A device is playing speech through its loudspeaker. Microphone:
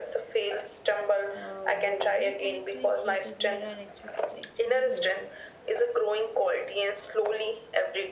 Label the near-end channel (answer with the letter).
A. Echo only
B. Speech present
B